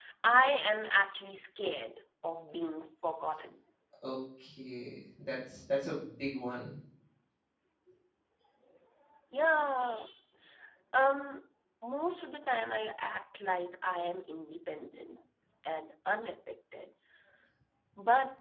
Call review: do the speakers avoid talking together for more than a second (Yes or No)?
Yes